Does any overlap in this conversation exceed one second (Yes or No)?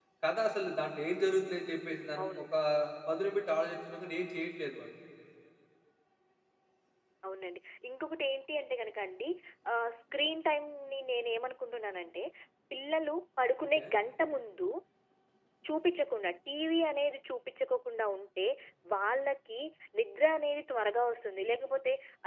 No